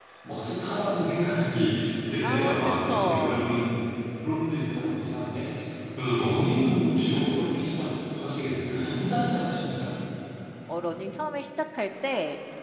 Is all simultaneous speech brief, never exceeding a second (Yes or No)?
No